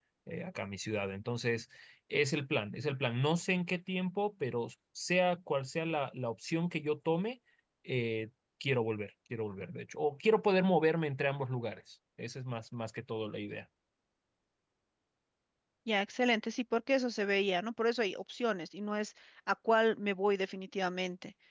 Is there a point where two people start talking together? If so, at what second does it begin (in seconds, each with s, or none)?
none